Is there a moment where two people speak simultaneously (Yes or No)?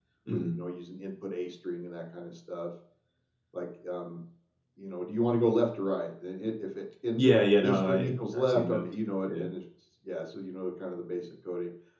Yes